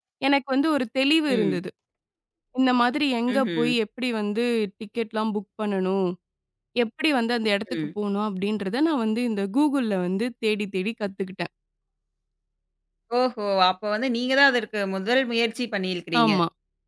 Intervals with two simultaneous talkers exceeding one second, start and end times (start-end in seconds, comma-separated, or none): none